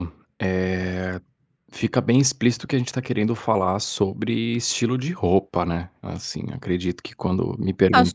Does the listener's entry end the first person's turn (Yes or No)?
Yes